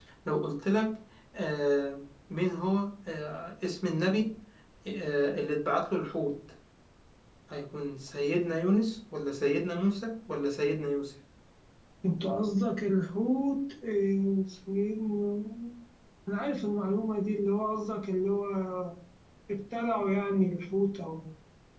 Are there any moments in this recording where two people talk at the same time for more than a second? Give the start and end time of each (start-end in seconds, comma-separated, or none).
none